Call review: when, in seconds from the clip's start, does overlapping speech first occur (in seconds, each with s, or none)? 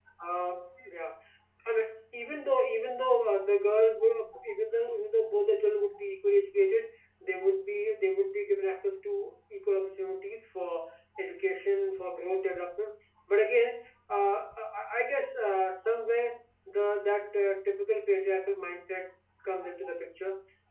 none